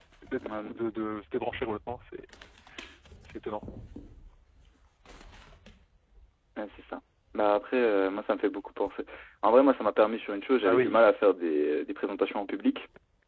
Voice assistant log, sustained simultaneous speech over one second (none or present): none